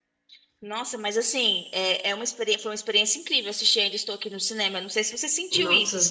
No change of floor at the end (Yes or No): No